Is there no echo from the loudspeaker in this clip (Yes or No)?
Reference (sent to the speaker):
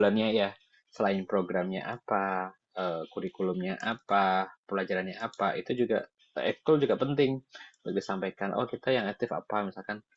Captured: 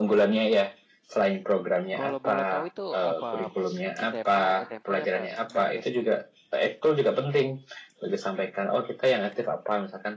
No